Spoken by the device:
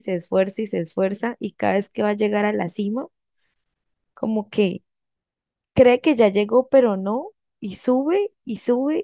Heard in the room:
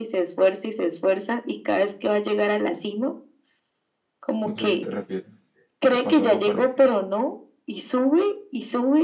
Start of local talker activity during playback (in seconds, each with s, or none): 4.5 s